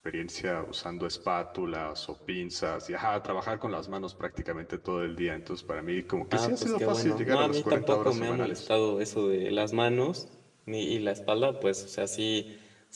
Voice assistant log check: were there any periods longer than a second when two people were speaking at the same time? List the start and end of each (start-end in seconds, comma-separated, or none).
6.3-8.6